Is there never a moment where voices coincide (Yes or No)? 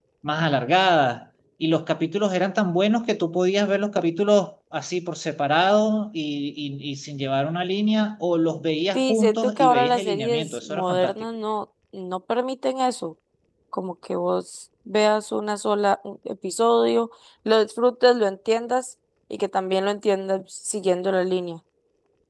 No